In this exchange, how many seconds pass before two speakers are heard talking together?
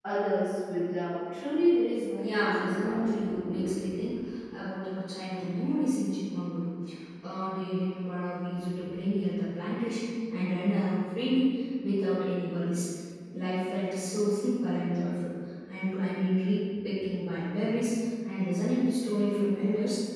2 s

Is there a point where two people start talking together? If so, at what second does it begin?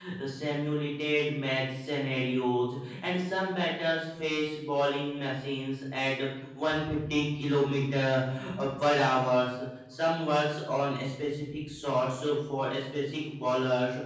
none

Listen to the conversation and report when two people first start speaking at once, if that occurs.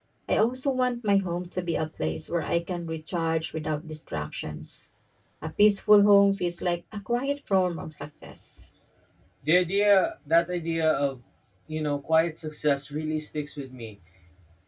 none

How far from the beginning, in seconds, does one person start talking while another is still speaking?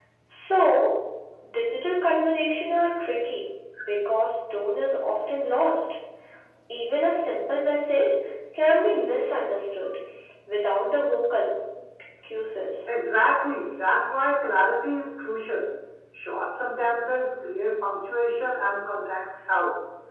none

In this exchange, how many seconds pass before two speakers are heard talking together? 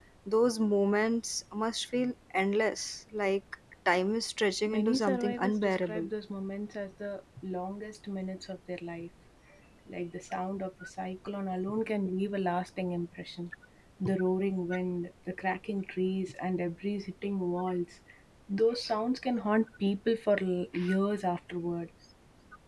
5 s

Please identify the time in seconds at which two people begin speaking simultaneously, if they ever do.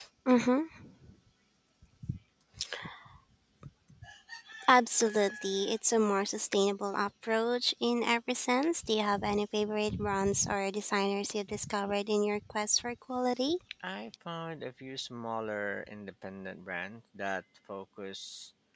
none

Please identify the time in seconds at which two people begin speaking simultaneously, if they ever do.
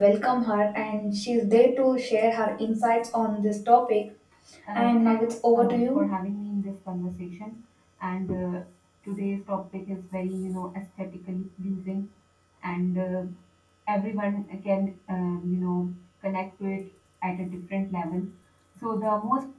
5 s

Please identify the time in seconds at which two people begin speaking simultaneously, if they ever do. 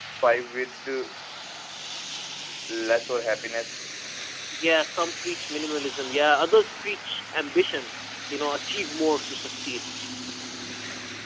none

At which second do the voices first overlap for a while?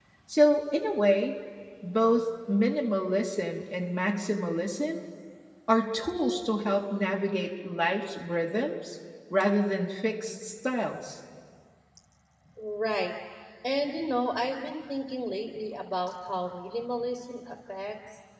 none

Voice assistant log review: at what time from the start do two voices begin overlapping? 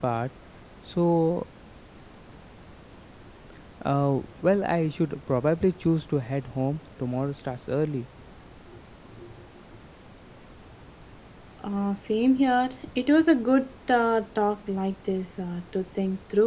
none

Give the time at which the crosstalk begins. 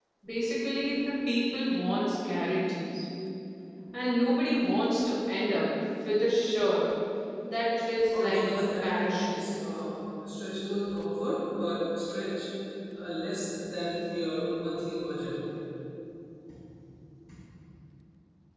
8 s

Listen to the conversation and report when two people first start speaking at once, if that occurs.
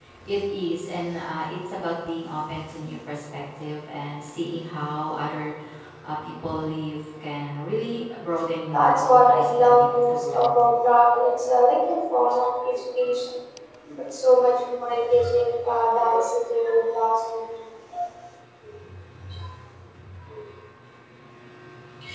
9 s

